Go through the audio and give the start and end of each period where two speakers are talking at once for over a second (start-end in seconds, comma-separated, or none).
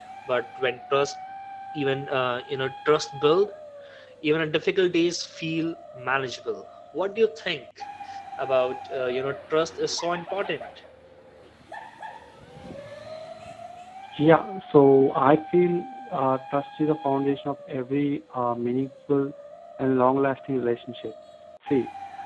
none